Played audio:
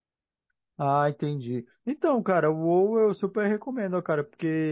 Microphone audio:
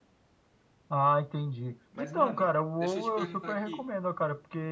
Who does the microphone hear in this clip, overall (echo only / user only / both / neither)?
both